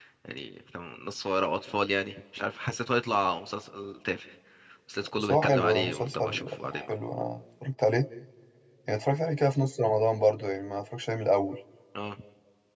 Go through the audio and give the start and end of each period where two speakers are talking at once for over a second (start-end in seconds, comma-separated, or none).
5.2-6.9